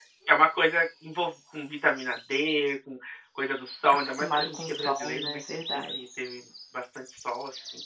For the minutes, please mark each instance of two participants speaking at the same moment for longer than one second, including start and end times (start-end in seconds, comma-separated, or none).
3.9-6.0